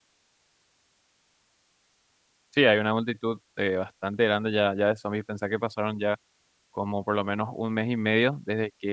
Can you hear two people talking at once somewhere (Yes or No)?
No